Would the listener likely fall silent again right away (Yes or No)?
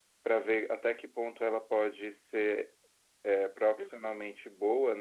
Yes